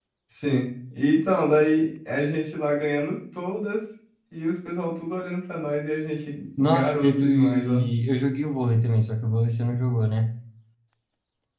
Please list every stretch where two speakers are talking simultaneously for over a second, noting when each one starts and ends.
6.6-7.9

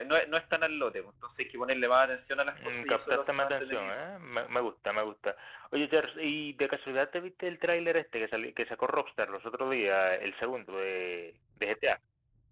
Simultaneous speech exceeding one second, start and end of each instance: 2.5-3.9

